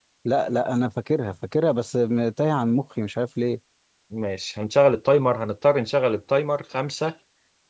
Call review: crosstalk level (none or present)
none